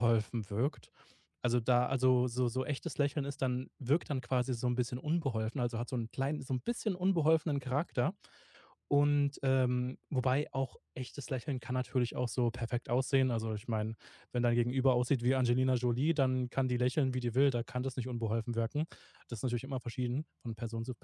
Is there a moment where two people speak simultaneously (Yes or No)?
No